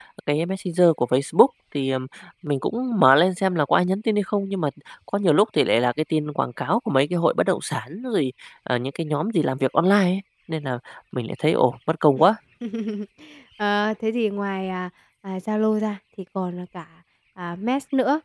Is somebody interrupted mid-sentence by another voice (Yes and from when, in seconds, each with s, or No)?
No